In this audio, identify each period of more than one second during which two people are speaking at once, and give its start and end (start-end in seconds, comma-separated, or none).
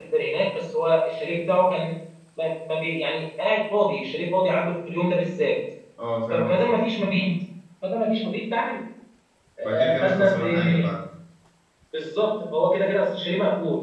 9.6-10.9